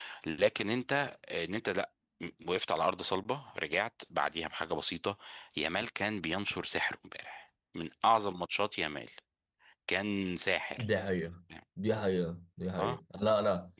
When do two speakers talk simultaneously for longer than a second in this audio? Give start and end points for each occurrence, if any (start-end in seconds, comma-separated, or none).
none